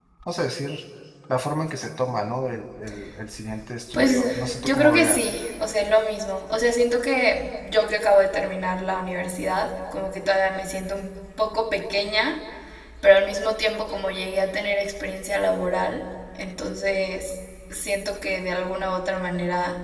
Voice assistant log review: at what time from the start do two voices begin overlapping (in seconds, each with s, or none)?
3.9 s